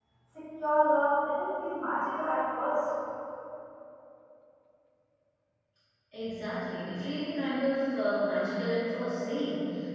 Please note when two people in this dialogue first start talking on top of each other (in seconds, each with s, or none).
none